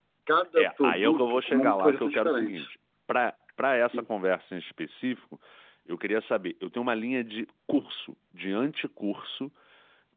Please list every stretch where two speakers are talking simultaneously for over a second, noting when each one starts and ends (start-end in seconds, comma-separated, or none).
0.6-2.7